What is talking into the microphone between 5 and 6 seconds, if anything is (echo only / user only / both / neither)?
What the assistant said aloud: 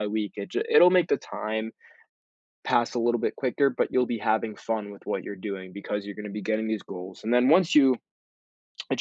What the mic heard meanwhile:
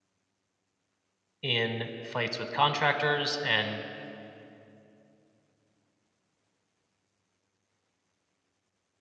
neither